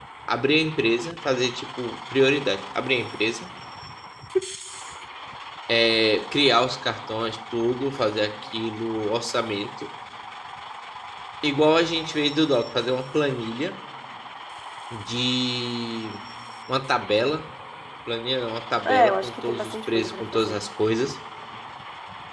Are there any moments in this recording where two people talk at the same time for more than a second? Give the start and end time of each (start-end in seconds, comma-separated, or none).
18.9-20.6